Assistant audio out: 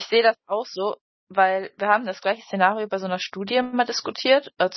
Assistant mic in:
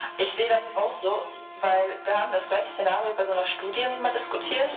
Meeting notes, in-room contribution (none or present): none